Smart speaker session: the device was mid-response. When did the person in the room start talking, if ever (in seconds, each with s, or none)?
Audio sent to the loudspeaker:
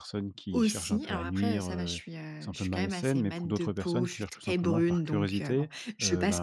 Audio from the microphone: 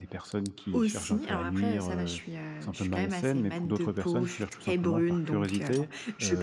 none